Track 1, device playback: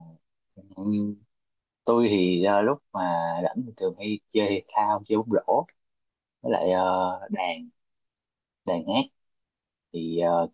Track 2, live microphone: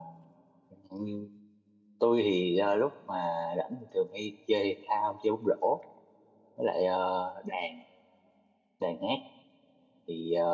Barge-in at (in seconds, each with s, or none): none